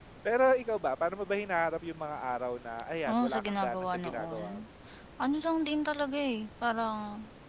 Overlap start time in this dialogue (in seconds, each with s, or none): 3.1 s